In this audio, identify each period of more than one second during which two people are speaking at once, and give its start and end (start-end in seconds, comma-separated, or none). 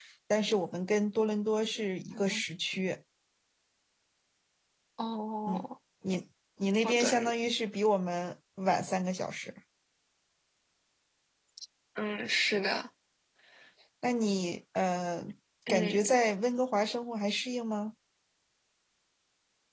none